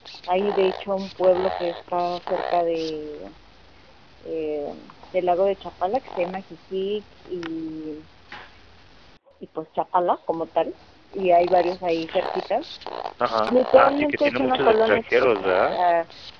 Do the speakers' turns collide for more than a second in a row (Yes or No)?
Yes